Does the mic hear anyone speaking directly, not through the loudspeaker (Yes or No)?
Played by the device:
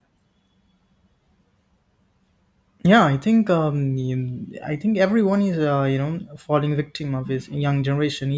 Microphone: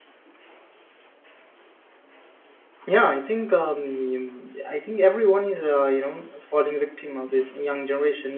No